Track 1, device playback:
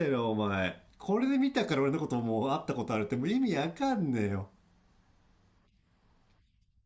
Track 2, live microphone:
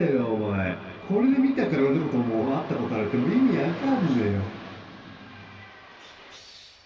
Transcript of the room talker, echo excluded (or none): none